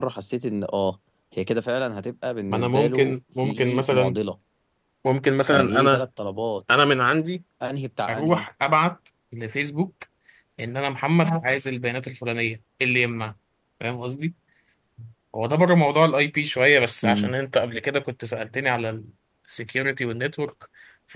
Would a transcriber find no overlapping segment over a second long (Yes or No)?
No